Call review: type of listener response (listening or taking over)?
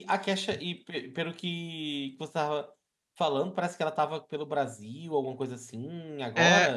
taking over